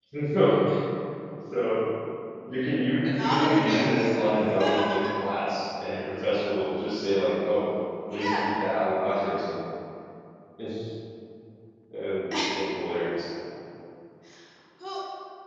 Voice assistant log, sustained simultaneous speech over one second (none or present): present